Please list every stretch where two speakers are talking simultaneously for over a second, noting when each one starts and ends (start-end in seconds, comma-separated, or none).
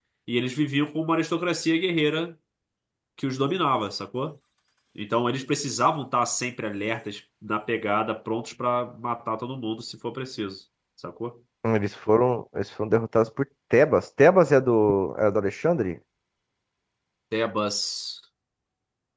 none